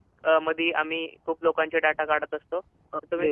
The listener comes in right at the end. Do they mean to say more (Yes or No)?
Yes